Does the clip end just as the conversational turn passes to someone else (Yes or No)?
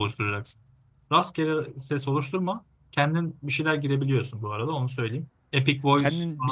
Yes